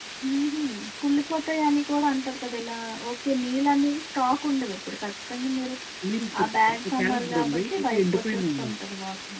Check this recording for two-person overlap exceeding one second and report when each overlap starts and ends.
6.4-8.8

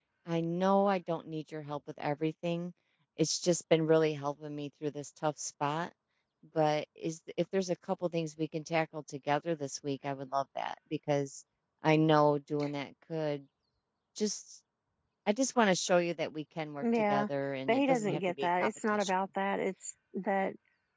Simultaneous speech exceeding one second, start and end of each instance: 17.7-19.1

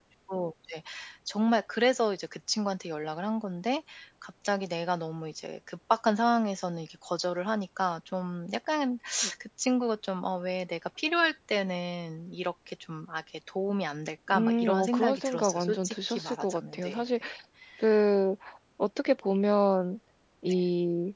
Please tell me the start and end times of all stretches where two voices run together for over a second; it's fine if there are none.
14.3-17.0

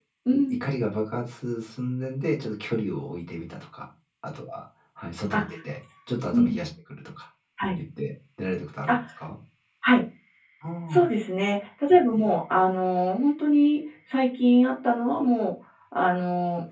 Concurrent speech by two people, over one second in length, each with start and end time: none

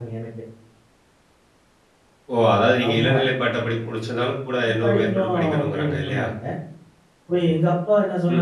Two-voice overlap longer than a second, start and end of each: 4.8-6.3

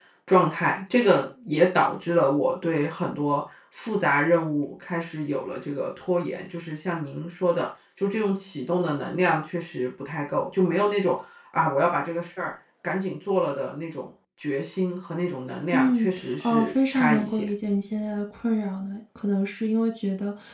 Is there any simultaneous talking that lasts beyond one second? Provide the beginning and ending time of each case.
15.7-17.5

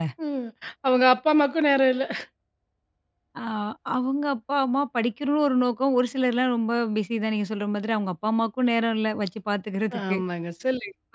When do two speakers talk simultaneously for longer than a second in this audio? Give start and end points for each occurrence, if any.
none

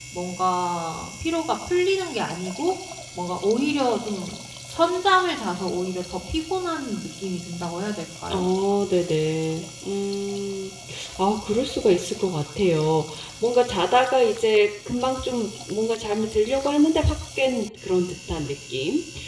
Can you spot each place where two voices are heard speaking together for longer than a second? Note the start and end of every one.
none

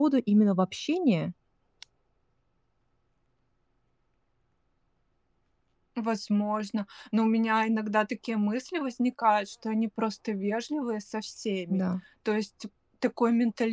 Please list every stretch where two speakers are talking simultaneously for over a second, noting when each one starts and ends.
none

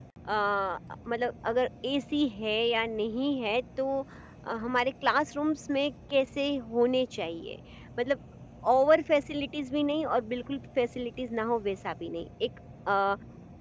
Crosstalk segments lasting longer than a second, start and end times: none

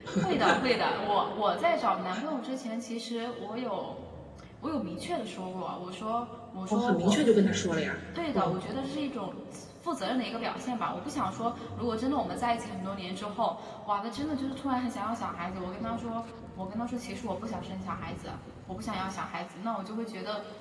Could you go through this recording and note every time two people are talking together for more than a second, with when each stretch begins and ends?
none

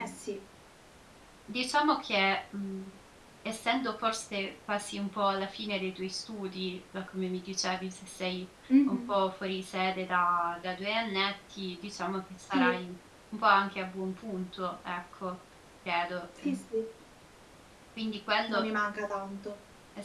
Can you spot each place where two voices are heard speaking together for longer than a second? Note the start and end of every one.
none

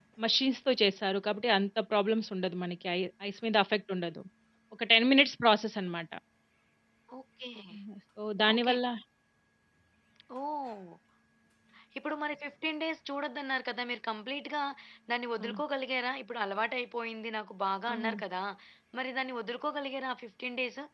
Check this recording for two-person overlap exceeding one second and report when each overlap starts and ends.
none

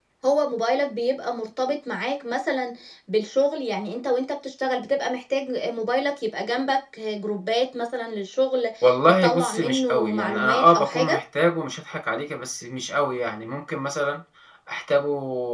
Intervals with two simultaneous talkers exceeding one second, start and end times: 9.2-11.2

